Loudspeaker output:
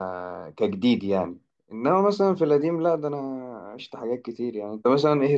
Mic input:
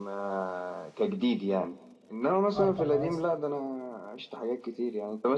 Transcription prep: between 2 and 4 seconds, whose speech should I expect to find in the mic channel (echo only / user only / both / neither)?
both